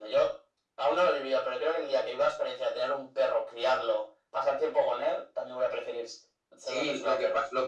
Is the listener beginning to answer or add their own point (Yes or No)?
Yes